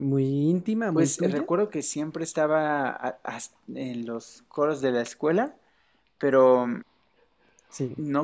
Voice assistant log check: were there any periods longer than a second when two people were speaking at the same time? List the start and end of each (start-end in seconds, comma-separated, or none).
none